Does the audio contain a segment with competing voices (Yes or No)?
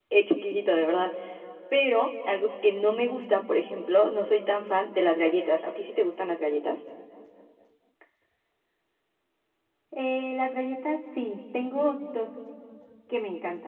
No